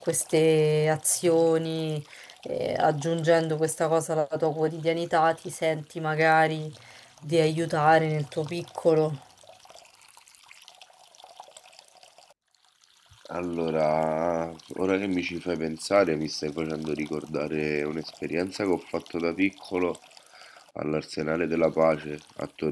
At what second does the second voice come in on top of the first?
none

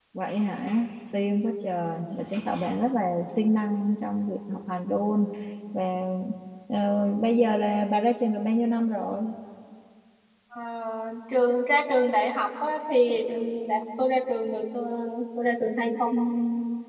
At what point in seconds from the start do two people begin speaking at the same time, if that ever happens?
none

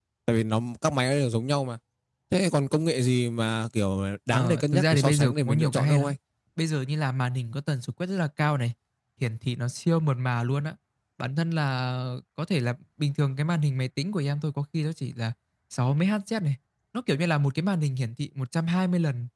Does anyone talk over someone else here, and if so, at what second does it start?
4 s

